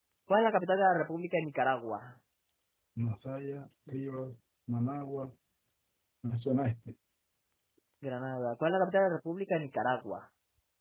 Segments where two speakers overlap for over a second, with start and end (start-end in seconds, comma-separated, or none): none